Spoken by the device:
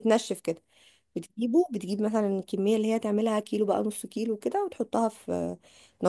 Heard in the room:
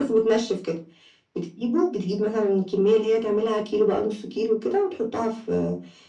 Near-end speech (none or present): none